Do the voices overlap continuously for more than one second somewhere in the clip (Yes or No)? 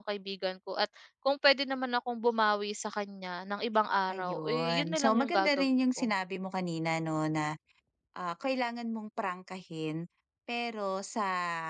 Yes